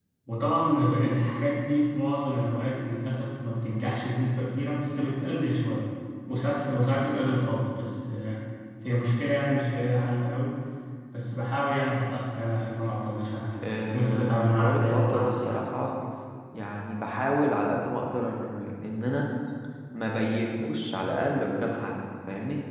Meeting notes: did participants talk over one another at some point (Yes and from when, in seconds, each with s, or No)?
Yes, from 13.9 s